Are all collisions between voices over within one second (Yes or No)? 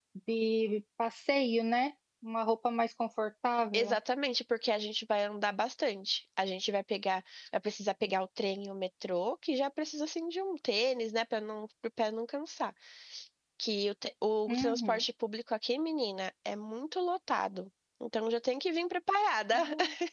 Yes